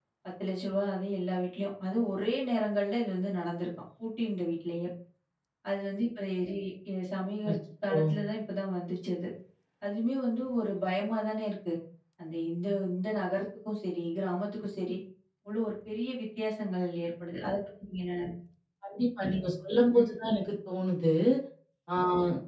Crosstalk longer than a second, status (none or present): none